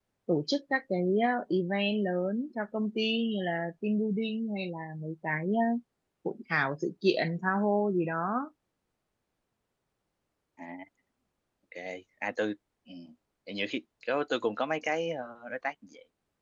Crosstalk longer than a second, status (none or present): none